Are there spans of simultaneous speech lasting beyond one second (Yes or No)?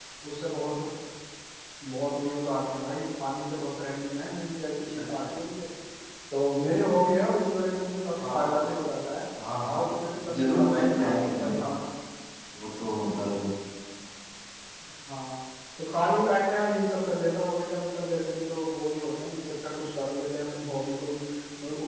Yes